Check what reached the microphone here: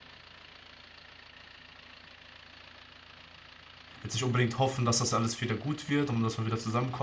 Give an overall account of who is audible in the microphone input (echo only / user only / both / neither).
user only